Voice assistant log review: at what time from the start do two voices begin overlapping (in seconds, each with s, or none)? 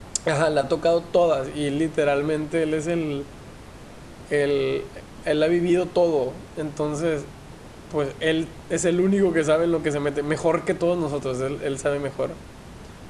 none